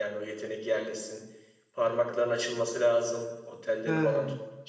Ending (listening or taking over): listening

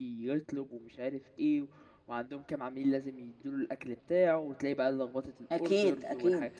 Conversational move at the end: listening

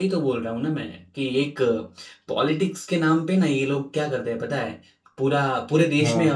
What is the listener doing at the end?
listening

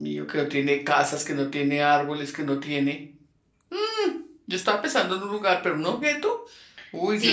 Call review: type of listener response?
taking over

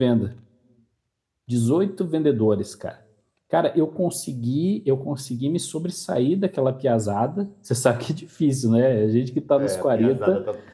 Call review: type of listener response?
taking over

